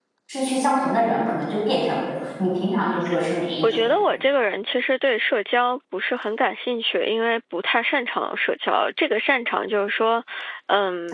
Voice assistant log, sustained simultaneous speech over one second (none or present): none